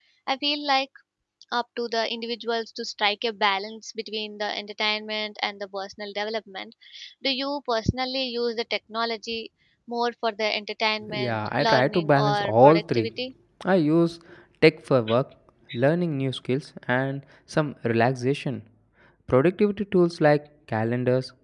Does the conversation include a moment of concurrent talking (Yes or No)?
Yes